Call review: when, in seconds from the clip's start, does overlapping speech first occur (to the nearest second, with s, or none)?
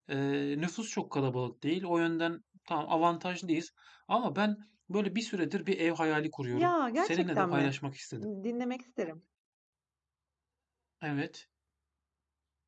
7 s